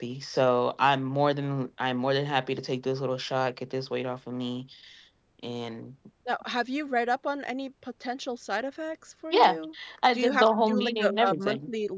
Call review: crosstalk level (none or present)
present